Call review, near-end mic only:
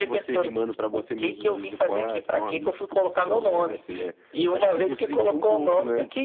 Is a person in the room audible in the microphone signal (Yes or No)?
Yes